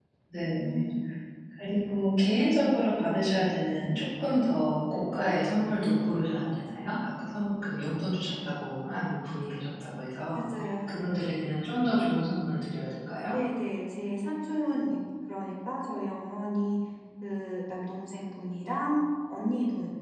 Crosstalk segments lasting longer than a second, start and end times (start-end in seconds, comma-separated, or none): none